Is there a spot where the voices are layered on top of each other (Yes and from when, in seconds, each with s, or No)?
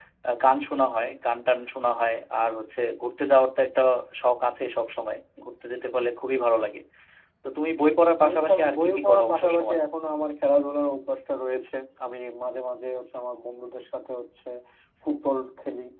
Yes, from 8.2 s